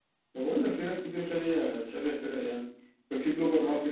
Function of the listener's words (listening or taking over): listening